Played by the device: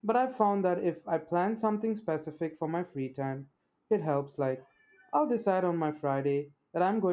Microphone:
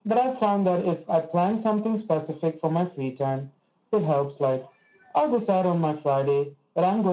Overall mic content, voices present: echo only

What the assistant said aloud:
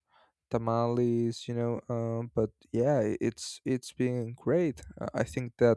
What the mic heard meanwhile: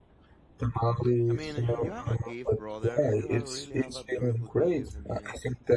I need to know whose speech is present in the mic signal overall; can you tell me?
both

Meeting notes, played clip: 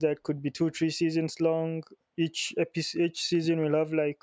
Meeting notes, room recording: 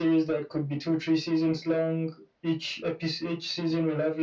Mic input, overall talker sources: echo only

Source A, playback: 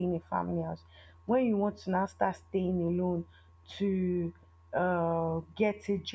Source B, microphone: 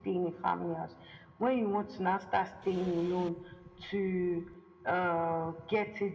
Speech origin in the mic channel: echo only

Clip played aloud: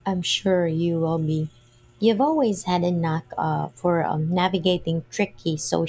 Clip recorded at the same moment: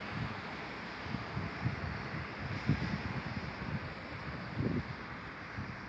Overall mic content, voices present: neither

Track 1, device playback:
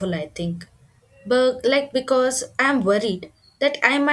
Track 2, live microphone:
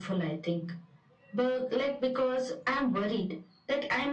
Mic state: echo only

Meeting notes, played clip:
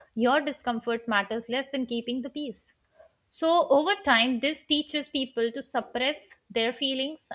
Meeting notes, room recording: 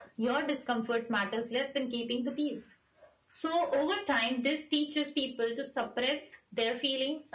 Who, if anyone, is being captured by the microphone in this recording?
echo only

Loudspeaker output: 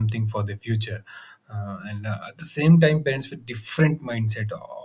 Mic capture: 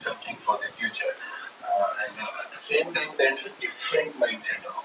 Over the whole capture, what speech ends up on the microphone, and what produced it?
echo only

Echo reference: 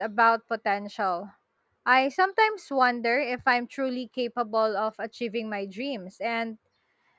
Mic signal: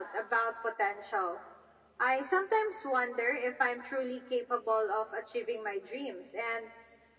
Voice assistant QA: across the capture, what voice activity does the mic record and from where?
echo only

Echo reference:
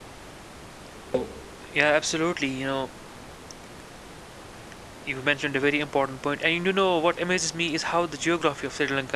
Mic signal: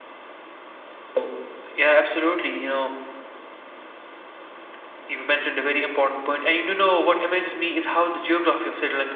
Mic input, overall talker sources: echo only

